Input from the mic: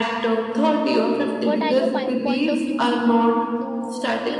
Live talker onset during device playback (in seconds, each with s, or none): 1.2 s